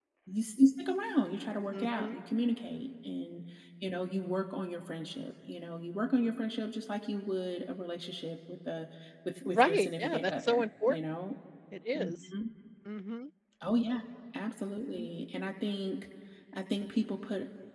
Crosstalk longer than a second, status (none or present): present